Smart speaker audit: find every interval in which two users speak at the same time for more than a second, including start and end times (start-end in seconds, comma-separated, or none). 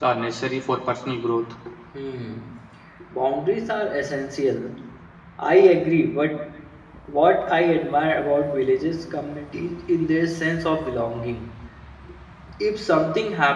none